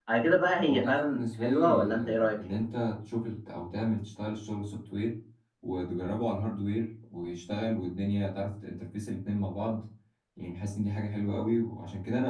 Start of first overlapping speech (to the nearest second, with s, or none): 1 s